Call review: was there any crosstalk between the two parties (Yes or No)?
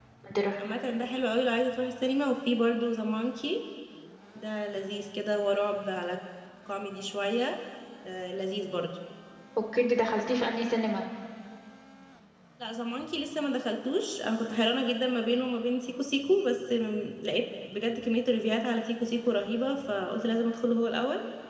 No